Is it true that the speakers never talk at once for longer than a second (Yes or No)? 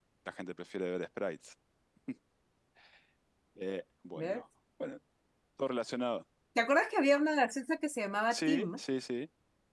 Yes